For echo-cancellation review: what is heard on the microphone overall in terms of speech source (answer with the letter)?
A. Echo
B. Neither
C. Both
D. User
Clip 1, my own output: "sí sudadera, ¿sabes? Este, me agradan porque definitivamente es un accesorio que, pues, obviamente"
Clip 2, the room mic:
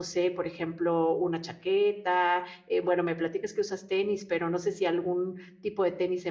D